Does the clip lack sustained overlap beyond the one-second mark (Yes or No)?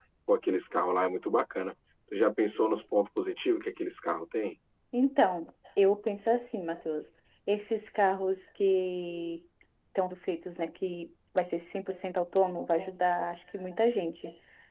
Yes